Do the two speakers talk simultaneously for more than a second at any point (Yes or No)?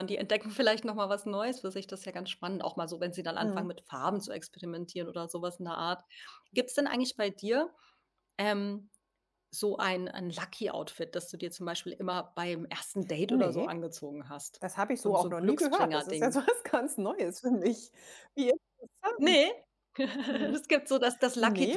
Yes